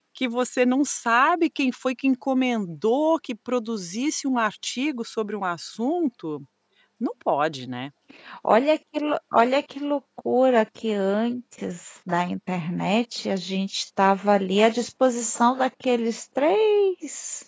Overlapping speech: No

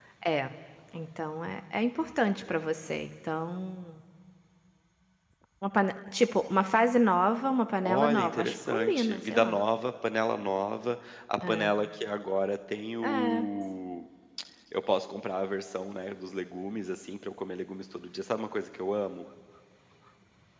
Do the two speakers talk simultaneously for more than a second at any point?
Yes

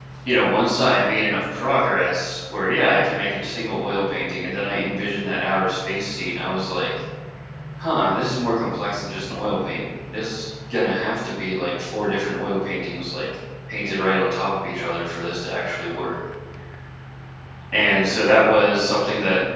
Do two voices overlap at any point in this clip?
No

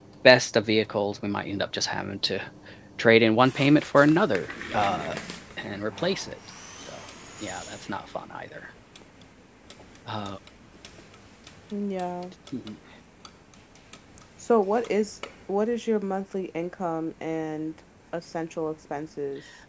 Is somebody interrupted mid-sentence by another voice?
No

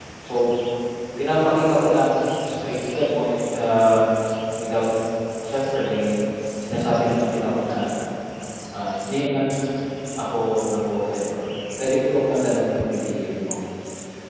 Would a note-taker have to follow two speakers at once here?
No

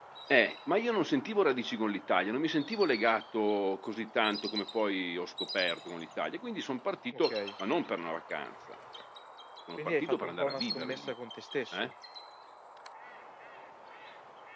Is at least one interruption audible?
Yes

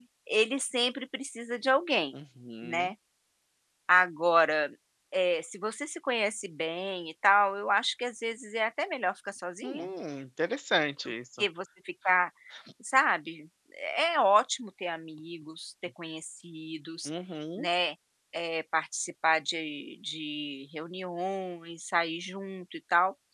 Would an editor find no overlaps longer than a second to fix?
Yes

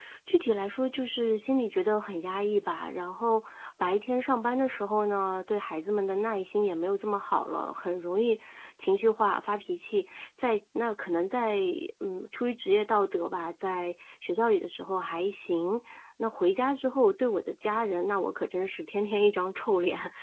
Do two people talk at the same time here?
No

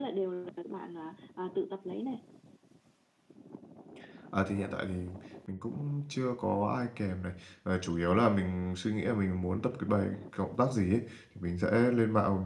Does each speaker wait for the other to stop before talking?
Yes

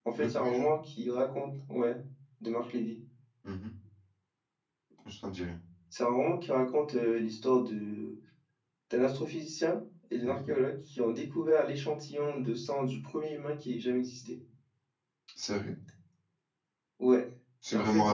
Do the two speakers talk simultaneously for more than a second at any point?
No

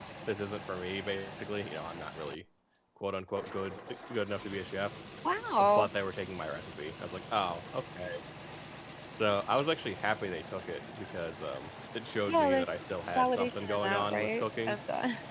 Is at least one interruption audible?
Yes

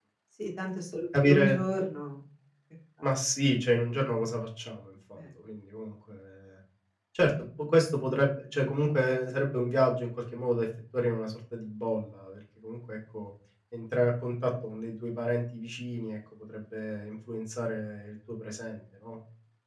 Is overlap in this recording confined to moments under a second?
Yes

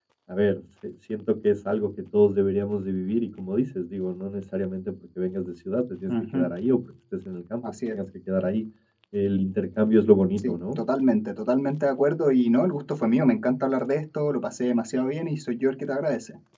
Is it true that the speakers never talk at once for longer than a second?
Yes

